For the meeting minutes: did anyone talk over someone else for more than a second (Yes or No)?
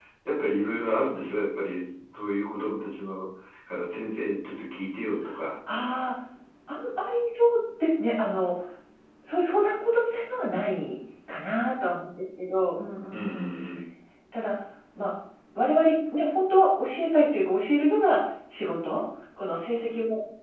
No